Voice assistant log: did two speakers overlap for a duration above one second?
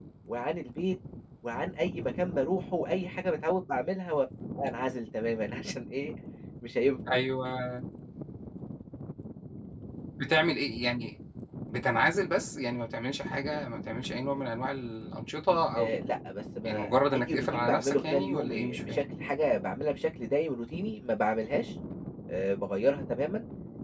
Yes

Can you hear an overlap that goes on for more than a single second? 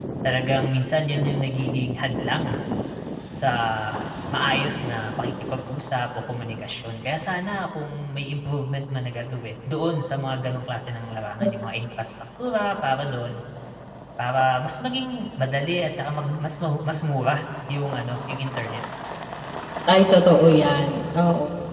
No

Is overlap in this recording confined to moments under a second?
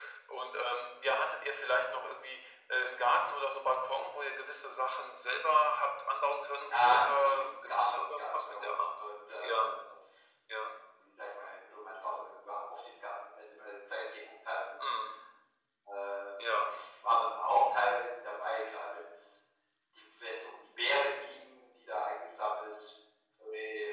No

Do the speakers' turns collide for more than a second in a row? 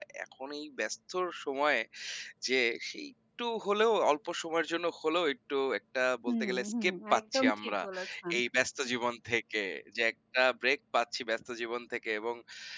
Yes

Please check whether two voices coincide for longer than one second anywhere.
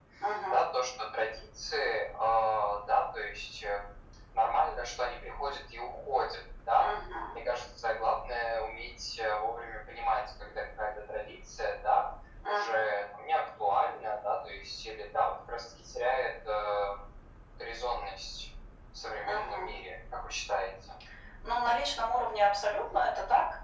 No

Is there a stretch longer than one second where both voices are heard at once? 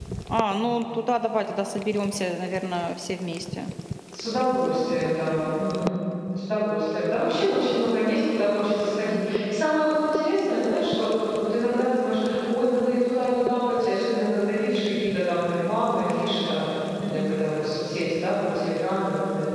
No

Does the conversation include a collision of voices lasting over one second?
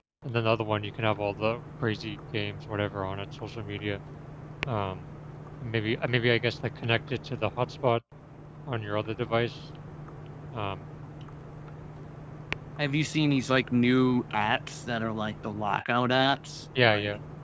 No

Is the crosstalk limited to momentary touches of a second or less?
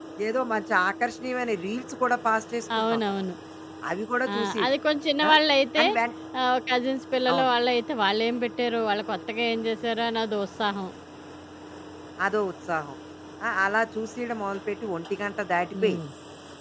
Yes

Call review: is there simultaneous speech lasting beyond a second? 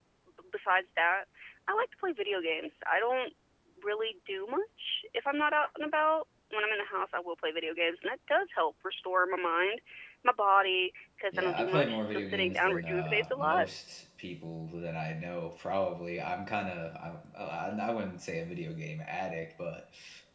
Yes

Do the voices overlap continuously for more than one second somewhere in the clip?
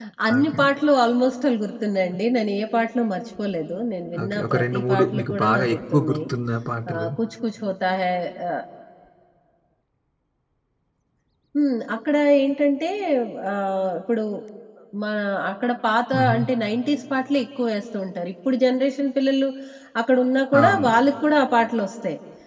Yes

